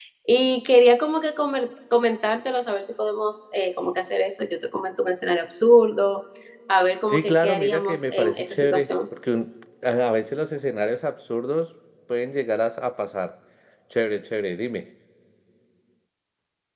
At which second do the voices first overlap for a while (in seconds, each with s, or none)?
7.1 s